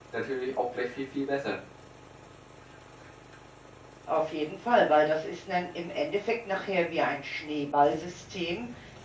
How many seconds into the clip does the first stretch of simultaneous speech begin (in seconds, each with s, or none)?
none